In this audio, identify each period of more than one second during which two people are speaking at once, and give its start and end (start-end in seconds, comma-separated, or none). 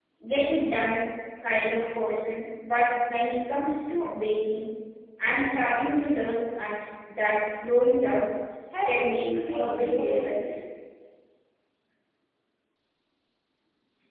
8.8-10.6